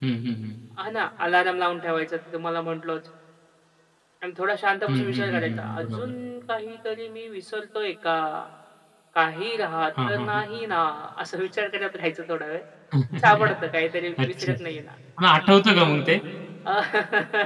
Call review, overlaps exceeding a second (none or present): present